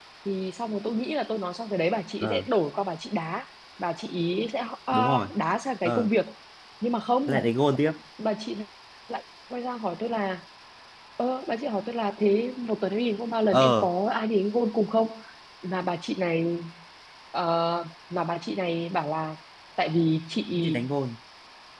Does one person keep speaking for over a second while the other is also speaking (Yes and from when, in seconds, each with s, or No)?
No